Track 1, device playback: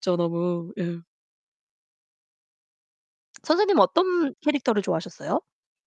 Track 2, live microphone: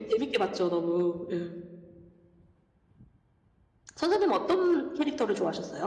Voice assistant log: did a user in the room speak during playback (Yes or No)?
No